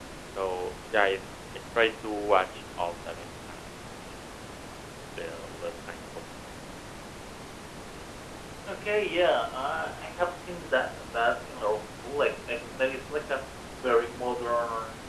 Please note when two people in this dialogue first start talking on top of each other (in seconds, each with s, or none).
none